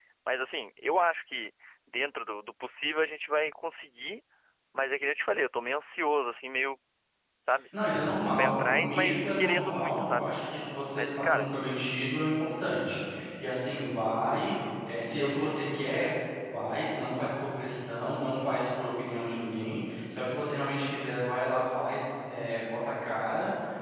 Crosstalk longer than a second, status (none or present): present